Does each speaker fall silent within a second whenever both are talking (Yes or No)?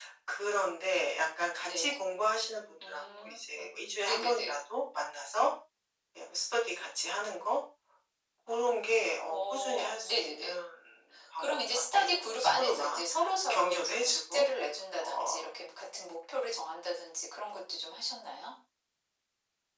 No